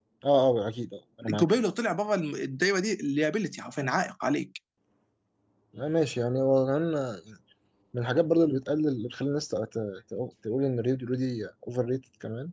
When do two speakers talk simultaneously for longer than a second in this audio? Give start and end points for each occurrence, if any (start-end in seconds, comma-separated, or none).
none